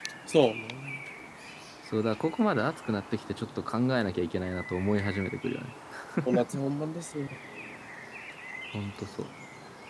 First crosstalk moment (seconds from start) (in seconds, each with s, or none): none